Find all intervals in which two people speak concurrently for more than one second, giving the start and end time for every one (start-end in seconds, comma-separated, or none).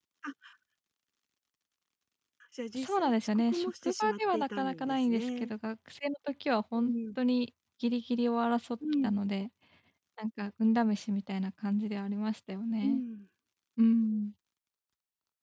2.8-5.5